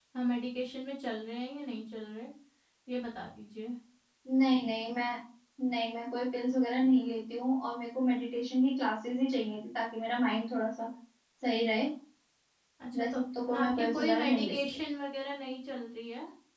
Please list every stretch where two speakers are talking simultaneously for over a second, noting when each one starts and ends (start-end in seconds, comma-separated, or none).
13.6-14.8